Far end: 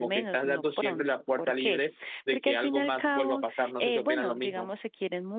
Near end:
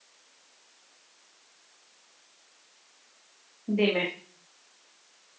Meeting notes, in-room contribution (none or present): present